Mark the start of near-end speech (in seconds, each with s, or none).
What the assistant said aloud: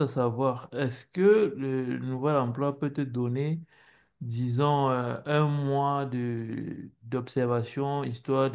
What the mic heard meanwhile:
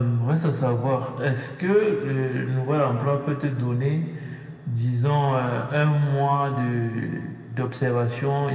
none